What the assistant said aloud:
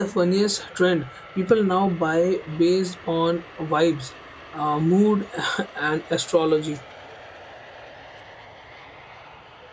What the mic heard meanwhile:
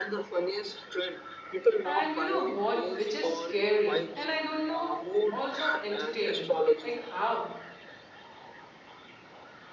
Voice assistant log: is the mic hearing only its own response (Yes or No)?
No